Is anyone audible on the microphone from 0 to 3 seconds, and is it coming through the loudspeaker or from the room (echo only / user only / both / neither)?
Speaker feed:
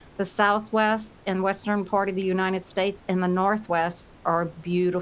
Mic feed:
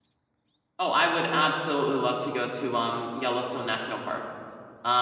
user only